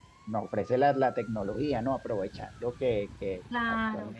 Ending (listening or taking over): taking over